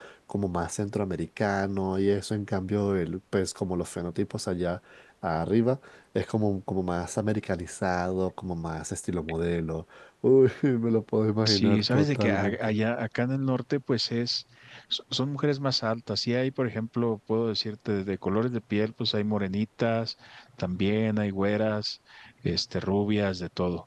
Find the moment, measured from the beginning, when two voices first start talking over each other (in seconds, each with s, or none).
11.4 s